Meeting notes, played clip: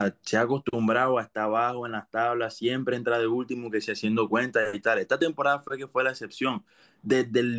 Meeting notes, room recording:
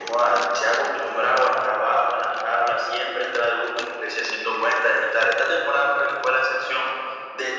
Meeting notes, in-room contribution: none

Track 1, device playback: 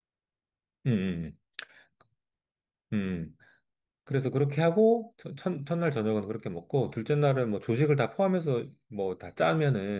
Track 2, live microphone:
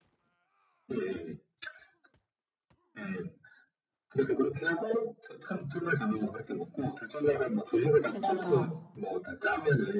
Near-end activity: present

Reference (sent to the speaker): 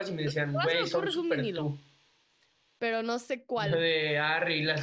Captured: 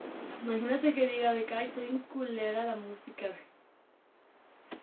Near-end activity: present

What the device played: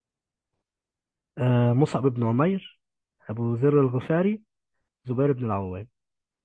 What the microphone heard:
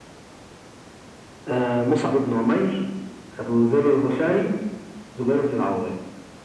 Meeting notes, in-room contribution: none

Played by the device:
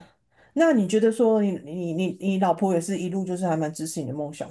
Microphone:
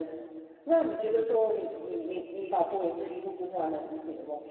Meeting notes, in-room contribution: none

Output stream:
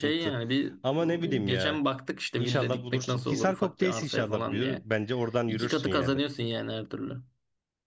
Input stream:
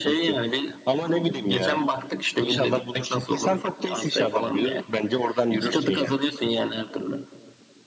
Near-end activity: none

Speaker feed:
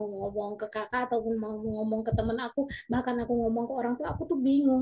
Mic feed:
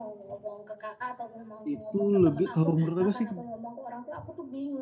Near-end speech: present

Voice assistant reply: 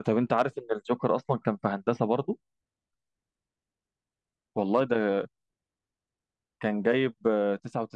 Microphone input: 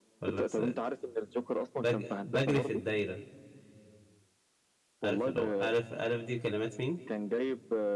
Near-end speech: present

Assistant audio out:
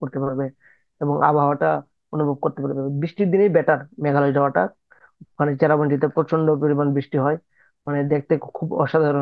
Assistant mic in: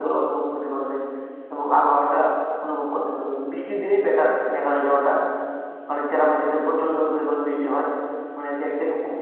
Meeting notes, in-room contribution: none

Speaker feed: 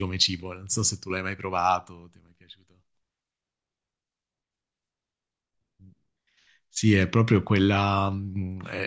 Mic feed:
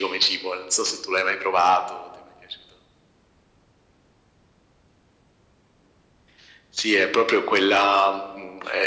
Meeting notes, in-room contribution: none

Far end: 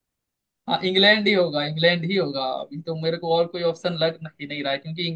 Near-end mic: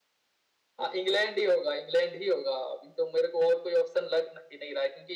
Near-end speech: none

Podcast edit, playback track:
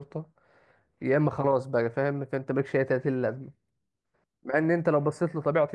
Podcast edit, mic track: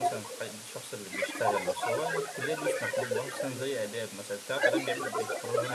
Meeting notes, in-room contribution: present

